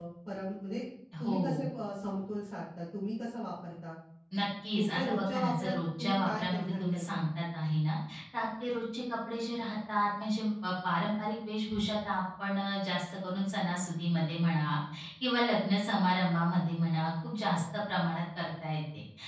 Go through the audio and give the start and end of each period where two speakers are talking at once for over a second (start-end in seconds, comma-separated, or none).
4.8-7.2